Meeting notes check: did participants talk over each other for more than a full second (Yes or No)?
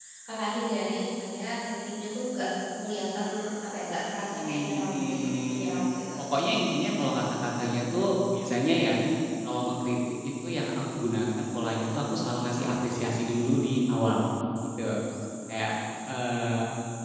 Yes